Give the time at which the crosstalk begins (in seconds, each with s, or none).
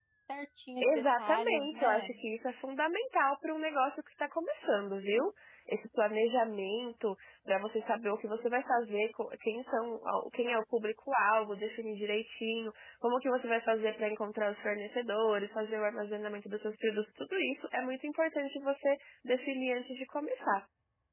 0.8 s